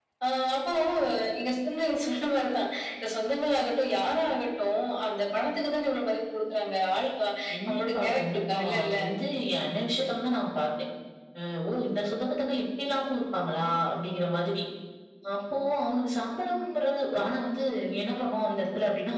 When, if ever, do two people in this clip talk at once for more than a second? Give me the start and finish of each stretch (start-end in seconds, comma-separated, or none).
7.7-8.9